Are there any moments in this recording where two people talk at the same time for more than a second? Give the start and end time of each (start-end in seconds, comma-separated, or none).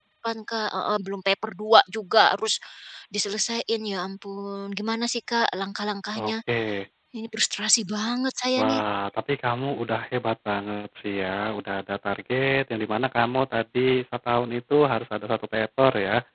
none